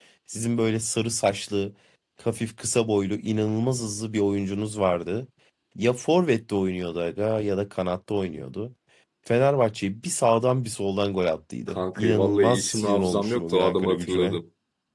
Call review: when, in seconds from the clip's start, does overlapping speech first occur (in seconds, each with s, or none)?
11.7 s